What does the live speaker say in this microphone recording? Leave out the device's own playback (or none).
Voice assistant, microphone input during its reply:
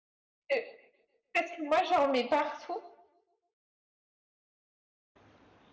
euh, Parce que moi, j'en mets partout.